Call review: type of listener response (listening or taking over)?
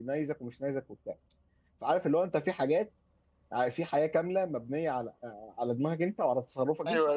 taking over